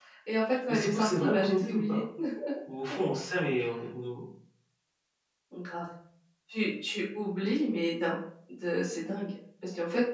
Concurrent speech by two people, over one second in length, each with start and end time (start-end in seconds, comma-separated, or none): 0.7-2.0